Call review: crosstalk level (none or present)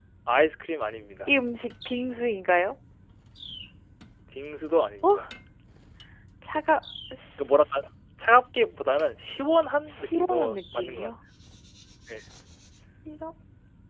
present